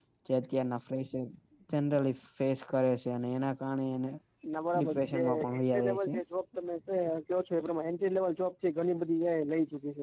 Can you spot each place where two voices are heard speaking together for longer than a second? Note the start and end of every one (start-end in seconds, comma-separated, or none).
4.8-6.1